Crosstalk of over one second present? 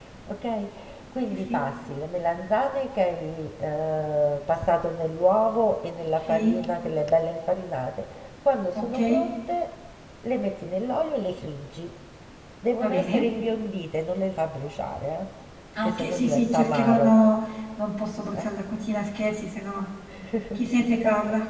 Yes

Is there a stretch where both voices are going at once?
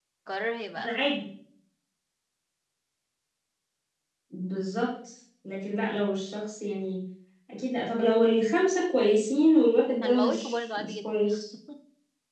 Yes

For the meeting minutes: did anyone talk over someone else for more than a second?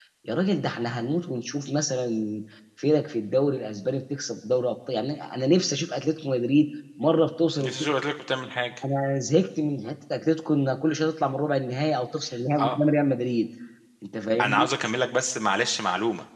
No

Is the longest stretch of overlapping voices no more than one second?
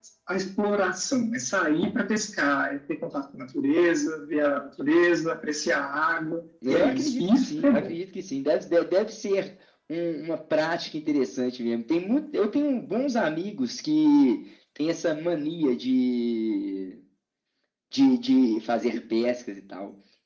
No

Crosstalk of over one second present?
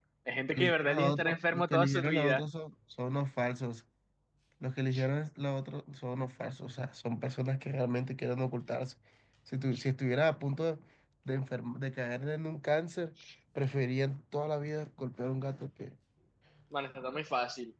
Yes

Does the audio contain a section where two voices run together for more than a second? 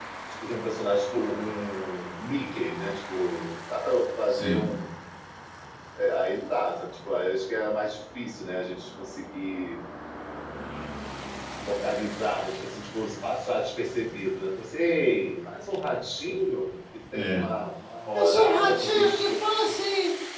Yes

